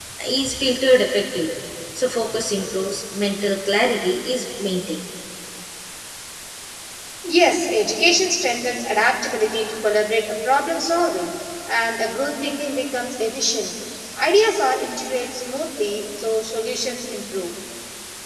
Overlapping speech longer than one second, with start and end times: none

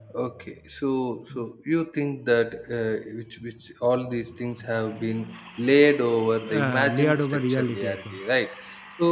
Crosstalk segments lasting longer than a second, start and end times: 6.5-8.2

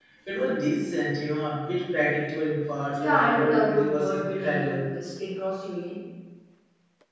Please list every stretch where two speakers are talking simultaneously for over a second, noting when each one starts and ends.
3.0-4.8

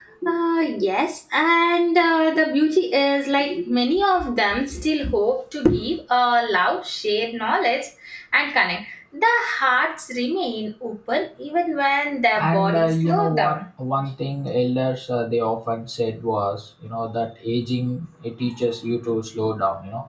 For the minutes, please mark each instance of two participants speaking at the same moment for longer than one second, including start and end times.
12.4-13.6

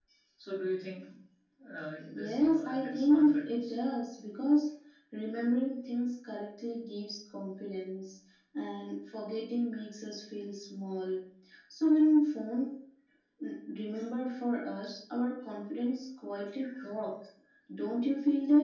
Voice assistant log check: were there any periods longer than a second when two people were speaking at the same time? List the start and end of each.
2.1-3.8

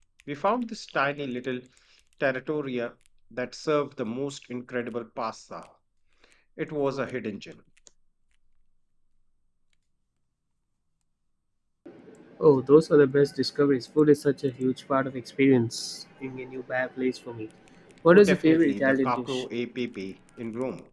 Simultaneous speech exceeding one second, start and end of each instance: 18.1-19.4

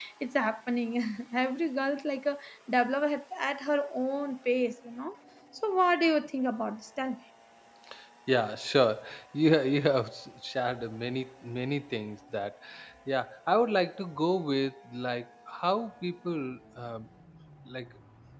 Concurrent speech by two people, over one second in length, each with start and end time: none

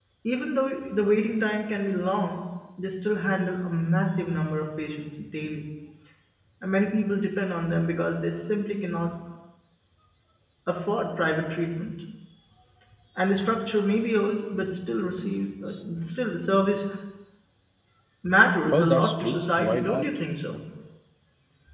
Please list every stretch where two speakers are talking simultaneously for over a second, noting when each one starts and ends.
18.7-20.1

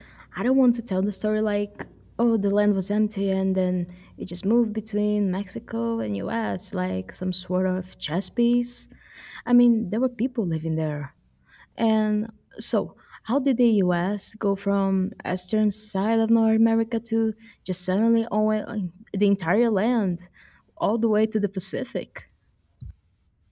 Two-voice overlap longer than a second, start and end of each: none

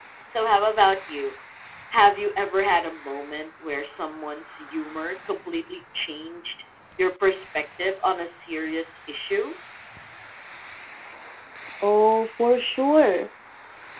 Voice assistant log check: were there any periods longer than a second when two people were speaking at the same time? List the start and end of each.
none

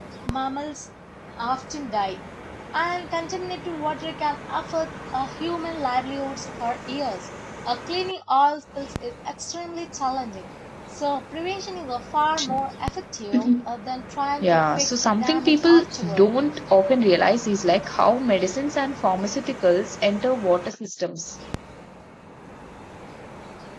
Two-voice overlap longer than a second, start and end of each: 14.4-16.3

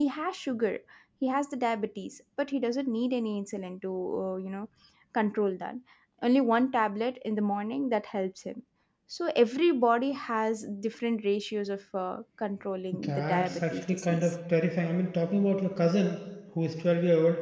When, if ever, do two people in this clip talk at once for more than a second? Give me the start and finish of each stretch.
12.9-14.3

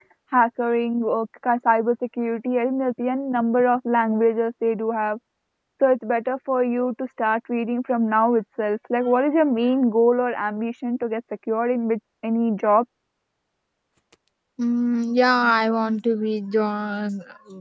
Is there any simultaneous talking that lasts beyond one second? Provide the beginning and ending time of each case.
none

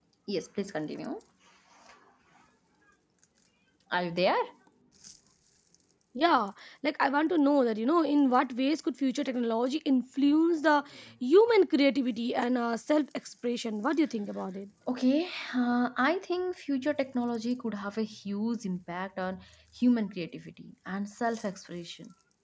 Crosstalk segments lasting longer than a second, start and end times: none

